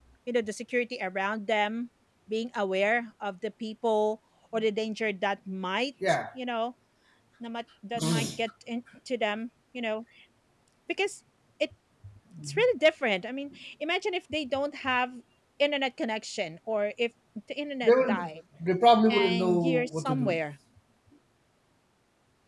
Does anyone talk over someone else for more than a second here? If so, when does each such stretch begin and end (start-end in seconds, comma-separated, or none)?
19.1-20.4